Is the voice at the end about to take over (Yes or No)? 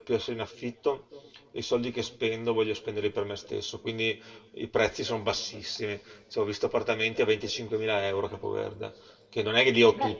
No